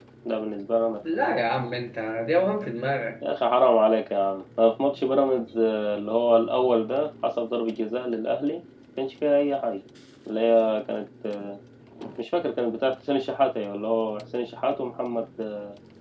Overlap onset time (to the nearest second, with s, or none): none